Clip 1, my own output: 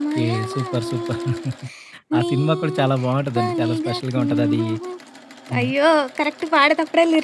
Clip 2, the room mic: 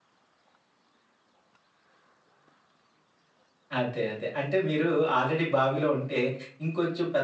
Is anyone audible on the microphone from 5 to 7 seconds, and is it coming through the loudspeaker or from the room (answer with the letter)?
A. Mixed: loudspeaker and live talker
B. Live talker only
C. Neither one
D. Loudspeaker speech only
B